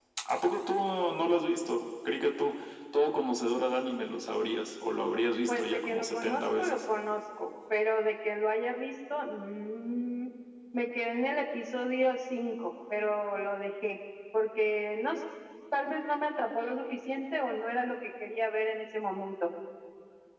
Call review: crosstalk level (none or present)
present